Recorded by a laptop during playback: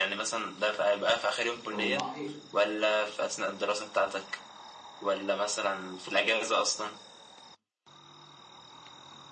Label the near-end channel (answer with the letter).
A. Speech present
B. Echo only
A